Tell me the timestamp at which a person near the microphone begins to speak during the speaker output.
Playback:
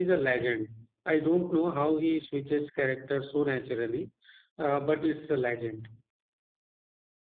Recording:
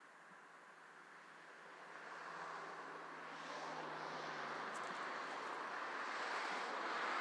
none

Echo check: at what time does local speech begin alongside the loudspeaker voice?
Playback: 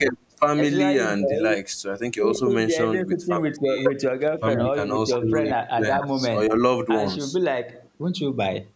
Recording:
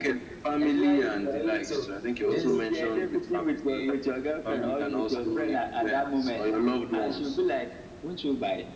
2 s

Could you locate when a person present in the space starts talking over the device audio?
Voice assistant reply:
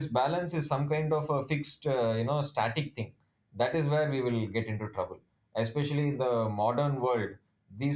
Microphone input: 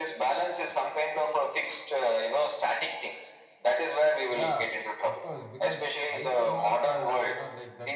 4 s

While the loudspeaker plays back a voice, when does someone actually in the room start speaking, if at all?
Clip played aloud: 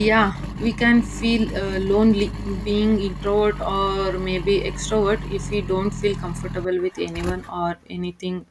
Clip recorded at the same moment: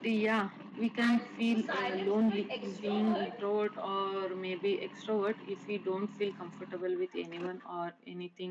1 s

